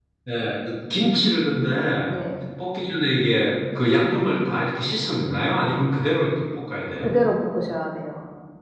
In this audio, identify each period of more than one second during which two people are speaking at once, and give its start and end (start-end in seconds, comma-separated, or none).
none